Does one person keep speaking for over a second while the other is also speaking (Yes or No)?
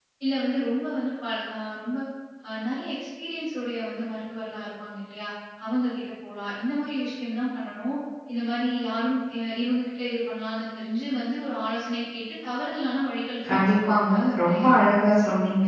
Yes